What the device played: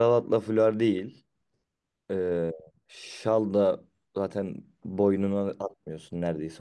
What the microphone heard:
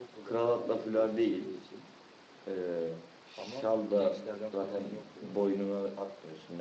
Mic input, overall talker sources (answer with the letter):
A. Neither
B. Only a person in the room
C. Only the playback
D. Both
D